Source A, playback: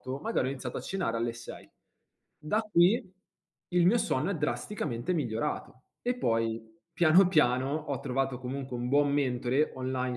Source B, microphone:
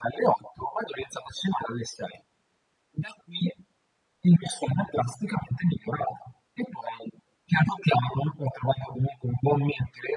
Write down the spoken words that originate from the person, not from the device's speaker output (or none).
none